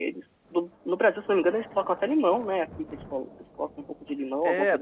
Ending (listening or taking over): taking over